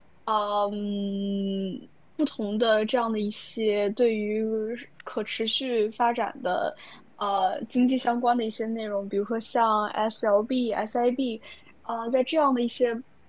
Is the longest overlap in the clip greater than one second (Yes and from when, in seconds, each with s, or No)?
No